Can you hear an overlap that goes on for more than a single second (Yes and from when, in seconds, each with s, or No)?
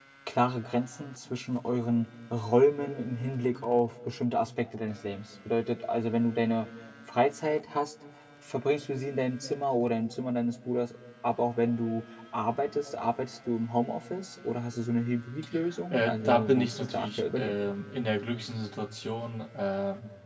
Yes, from 15.9 s